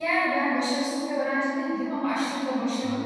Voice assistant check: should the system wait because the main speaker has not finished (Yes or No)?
Yes